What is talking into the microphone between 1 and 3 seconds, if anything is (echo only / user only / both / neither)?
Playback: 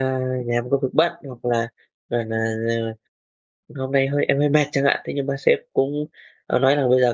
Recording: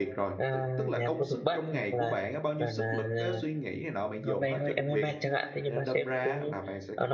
both